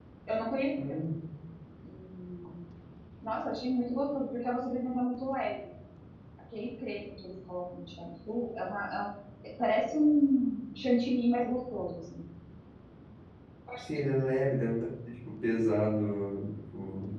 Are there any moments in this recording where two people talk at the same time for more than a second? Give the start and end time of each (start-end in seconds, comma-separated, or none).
none